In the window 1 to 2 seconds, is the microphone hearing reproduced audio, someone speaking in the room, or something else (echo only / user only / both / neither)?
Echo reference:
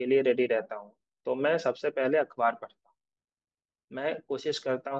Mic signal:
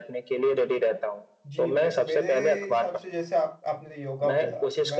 both